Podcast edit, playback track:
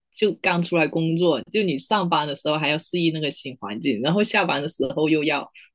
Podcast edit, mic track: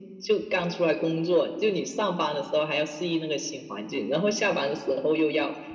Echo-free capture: No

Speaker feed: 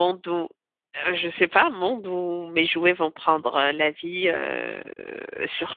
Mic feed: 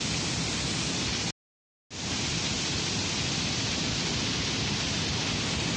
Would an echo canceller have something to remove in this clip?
No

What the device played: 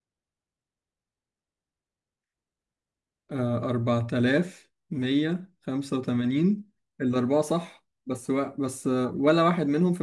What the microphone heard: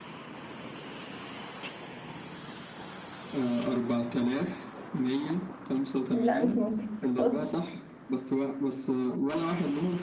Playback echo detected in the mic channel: Yes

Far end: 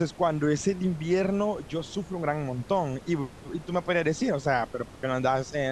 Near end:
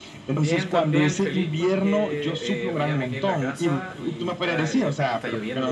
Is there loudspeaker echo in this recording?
Yes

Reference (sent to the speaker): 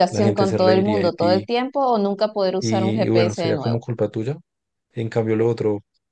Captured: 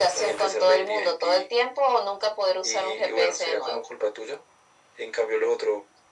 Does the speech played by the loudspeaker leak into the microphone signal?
Yes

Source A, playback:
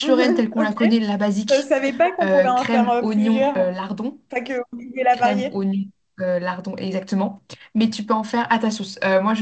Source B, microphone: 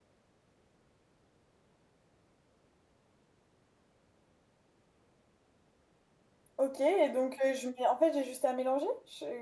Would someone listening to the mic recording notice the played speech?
No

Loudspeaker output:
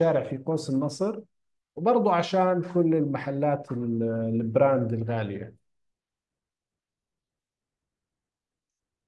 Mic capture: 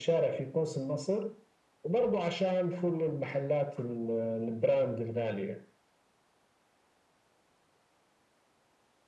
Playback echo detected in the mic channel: Yes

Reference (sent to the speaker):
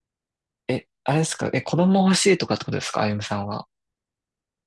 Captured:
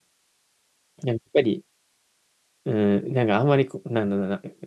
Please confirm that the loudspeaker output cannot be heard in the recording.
Yes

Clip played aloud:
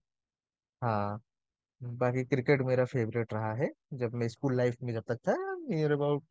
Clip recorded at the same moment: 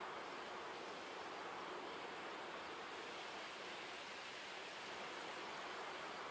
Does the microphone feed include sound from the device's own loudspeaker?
No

